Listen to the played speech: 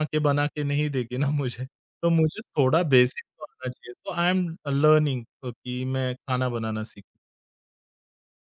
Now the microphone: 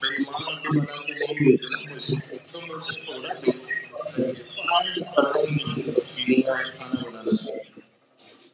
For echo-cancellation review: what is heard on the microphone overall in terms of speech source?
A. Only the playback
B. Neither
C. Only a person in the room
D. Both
A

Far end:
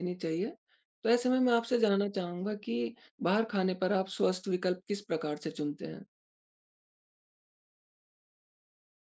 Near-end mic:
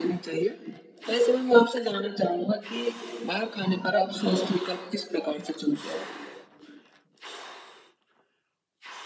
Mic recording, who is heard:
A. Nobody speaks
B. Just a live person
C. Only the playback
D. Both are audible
C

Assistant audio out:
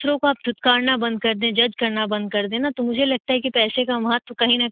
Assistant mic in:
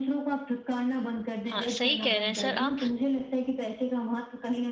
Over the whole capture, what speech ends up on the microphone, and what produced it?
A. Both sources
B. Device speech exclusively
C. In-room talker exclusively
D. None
A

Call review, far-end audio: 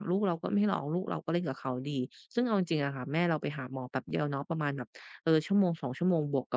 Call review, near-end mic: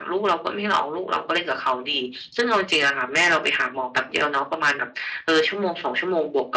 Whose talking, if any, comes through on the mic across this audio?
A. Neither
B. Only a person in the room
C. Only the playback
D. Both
C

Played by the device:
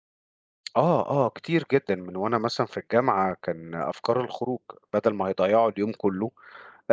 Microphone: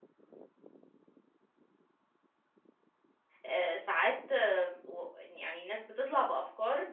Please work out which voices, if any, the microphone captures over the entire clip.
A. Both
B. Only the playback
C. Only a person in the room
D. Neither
C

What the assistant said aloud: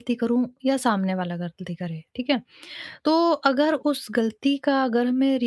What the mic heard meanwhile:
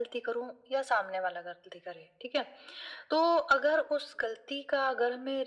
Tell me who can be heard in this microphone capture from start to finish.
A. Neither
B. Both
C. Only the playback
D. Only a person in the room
C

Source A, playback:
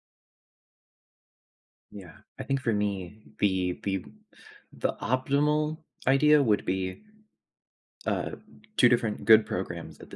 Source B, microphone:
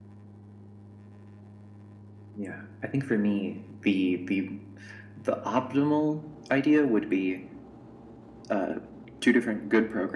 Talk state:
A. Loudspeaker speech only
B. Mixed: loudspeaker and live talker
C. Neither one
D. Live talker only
A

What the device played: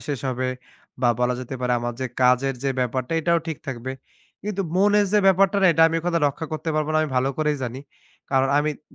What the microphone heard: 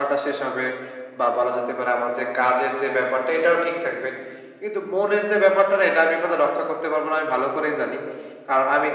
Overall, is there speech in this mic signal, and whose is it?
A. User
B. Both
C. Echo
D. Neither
C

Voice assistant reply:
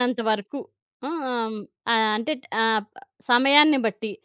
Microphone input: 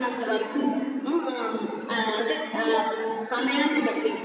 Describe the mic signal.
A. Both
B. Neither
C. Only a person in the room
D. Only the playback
D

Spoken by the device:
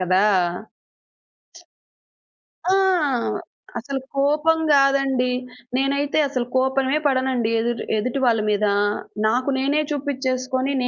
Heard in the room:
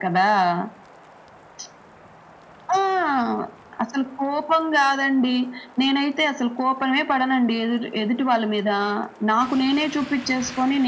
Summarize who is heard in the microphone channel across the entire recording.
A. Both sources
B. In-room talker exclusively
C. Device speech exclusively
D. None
C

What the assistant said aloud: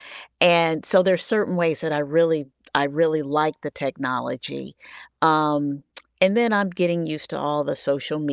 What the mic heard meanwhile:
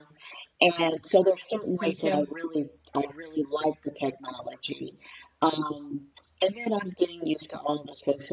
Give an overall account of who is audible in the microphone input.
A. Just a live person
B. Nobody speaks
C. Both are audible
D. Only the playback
C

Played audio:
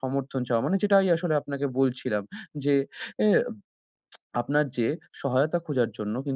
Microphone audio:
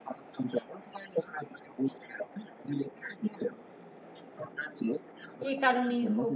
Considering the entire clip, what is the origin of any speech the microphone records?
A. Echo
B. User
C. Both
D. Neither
C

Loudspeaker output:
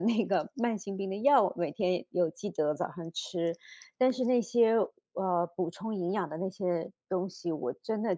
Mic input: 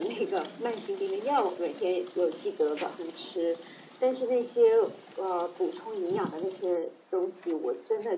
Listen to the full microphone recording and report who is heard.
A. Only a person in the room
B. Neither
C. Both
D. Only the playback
D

